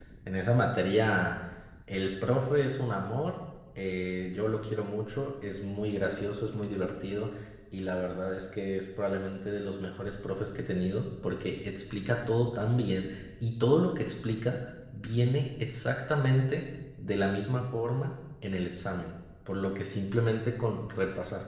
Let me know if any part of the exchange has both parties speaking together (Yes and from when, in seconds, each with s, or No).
No